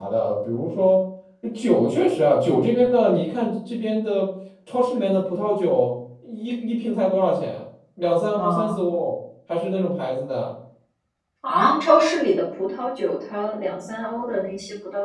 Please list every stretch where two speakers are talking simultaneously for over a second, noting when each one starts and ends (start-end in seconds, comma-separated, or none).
none